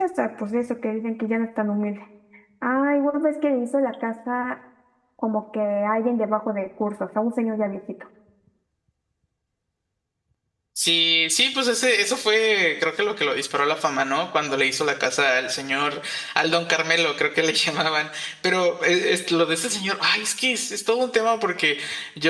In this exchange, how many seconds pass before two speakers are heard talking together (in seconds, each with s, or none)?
none